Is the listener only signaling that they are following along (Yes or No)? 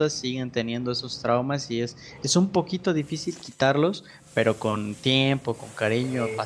Yes